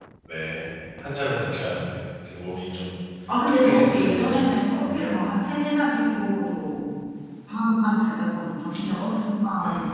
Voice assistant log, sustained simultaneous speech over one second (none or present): present